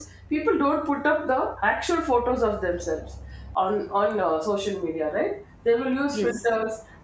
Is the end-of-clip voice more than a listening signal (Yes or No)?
No